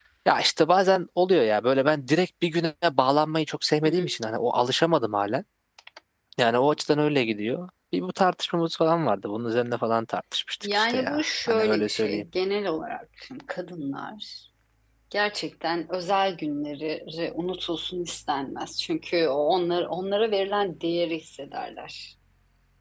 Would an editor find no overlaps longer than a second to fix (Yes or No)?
No